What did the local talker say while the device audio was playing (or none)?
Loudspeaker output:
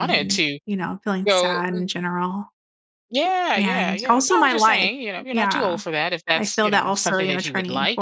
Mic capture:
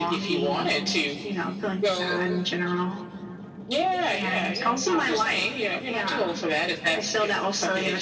none